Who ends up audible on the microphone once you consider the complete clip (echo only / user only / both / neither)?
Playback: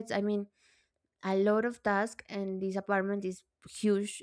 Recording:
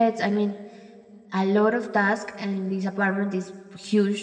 echo only